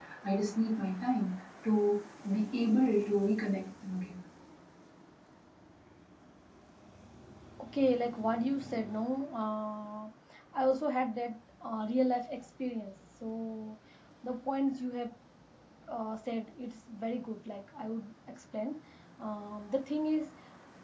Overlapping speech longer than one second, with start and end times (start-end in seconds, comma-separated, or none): none